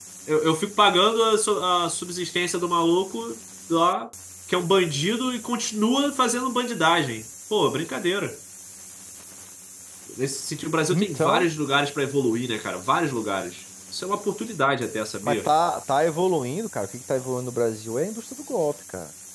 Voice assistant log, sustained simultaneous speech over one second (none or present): none